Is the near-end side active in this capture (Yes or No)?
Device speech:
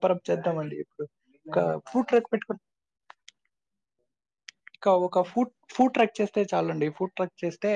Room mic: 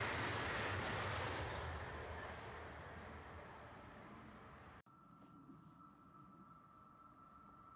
No